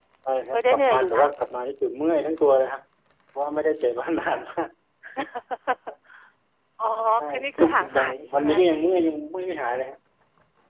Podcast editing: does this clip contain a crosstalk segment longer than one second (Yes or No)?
Yes